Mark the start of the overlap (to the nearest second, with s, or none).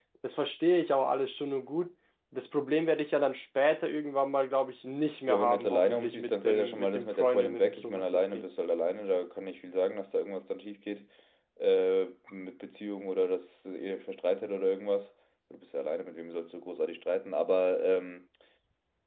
5 s